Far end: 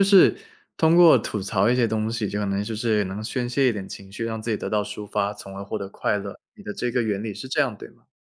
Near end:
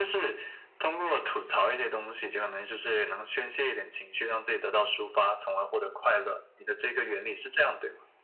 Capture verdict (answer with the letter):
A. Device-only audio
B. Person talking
A